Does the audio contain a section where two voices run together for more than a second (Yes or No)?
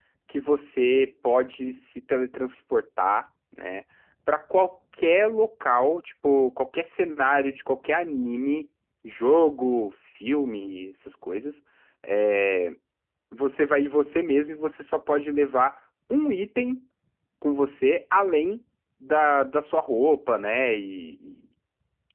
No